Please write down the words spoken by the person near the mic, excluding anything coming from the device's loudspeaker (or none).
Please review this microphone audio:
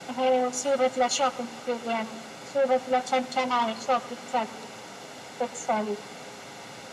none